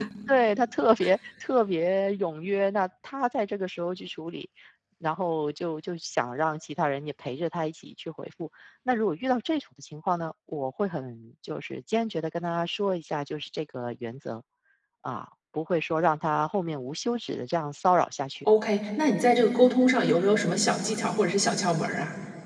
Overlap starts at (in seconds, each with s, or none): none